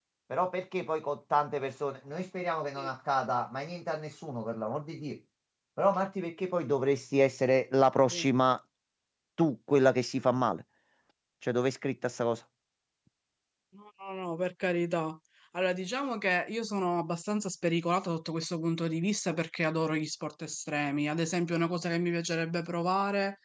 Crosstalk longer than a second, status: none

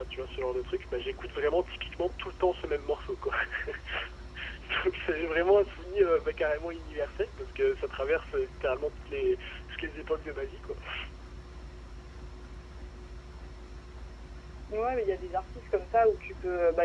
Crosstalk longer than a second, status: none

